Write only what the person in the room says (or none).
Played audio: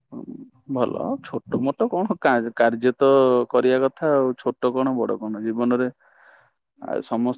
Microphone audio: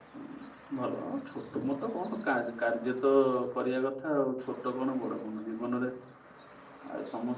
none